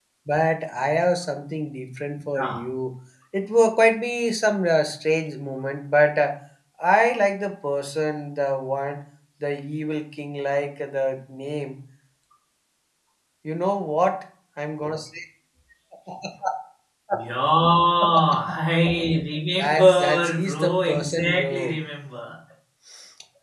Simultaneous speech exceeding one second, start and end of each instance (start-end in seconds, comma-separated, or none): 19.5-21.7